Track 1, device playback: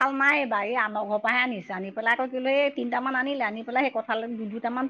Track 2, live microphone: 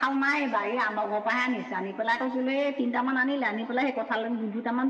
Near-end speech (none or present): none